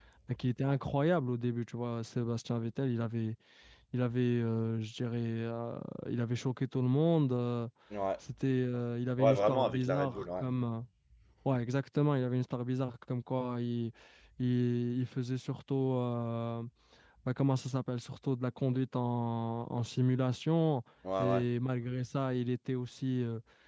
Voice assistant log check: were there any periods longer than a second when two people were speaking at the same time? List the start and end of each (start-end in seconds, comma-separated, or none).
9.2-10.4